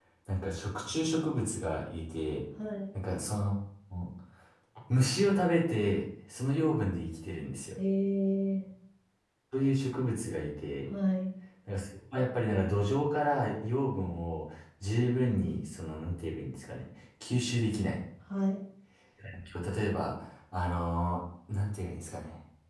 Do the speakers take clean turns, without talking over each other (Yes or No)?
Yes